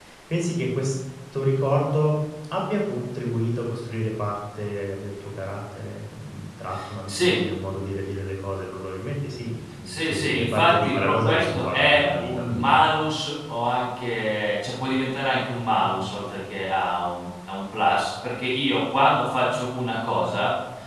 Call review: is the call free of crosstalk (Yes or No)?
No